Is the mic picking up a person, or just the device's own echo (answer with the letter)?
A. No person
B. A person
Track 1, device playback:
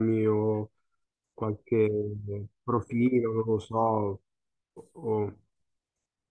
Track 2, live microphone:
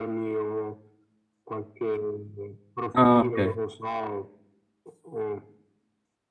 B